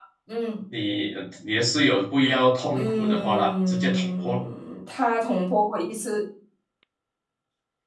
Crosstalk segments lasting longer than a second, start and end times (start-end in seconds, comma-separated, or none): 2.7-4.4